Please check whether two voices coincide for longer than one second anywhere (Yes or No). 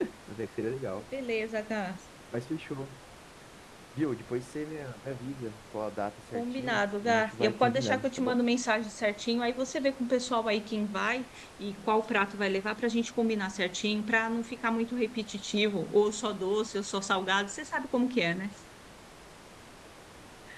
Yes